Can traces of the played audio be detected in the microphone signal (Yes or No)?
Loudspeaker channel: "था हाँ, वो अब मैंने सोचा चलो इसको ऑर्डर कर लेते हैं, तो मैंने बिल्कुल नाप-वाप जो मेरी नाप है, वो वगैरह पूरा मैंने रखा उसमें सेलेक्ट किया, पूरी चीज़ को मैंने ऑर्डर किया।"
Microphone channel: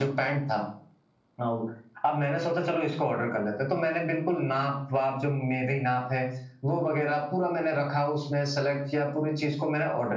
Yes